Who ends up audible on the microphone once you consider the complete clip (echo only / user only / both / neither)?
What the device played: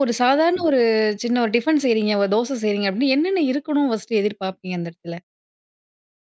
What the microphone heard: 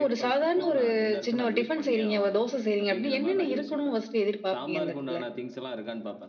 both